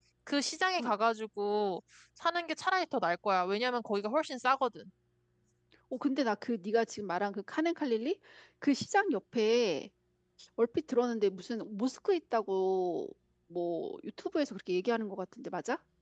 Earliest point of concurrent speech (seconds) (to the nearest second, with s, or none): none